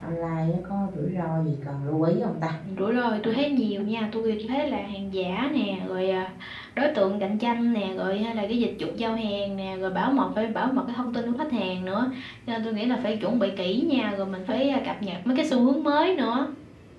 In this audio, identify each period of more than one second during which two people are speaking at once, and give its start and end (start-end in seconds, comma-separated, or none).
none